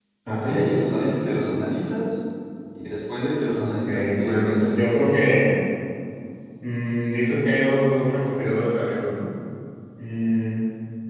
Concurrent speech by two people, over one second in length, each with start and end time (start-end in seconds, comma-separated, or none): 3.6-5.3